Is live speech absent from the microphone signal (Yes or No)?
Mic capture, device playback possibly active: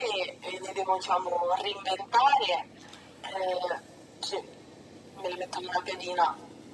Yes